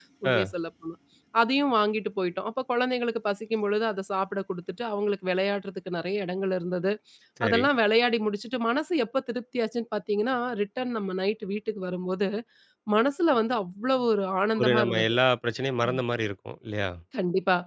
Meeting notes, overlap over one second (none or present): none